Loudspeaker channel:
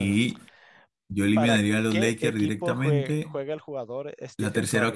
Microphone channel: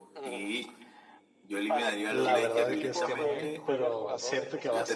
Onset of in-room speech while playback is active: 2 s

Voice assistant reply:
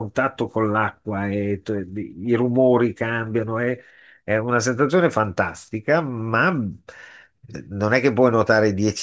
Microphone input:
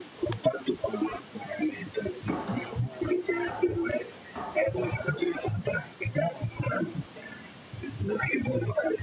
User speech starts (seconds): none

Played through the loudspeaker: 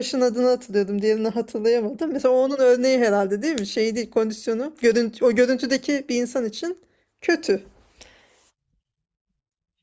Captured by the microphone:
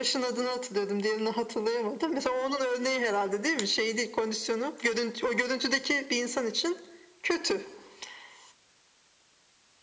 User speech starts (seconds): none

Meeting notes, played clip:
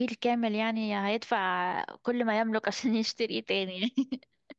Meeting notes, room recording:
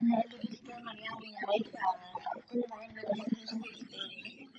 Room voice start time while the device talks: none

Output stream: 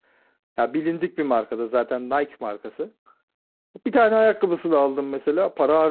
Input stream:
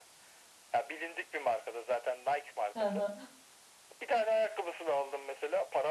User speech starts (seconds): 3 s

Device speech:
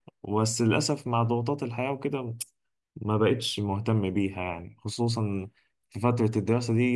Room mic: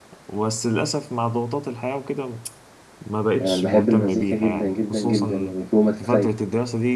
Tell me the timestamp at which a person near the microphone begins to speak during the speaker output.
3 s

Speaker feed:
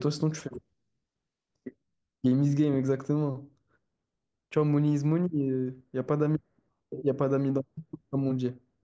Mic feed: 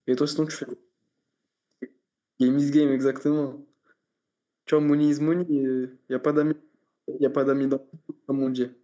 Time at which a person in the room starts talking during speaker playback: none

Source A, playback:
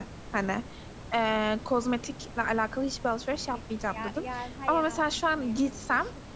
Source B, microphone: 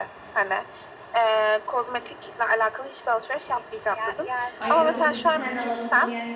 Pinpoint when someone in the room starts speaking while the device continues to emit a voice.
5 s

